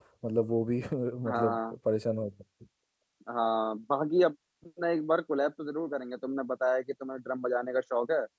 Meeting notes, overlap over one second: none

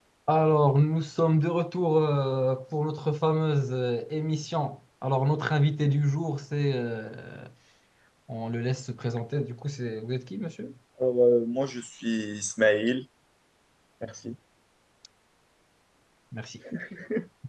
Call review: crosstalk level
none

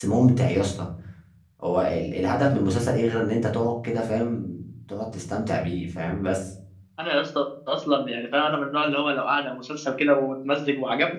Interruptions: none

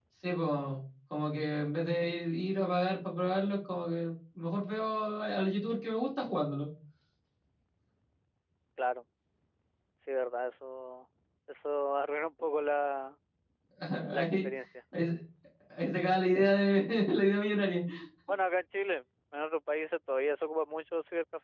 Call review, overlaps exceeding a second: none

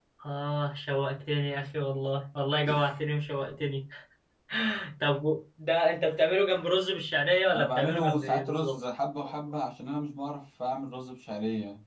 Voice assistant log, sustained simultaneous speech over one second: present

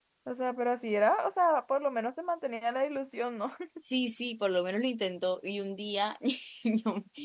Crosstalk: none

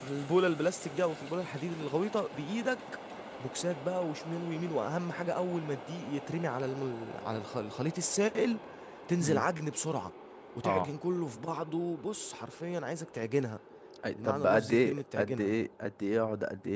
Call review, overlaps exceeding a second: present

